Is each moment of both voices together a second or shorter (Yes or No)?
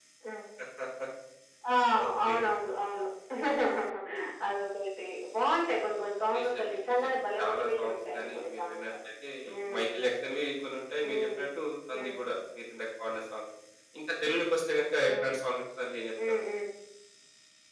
No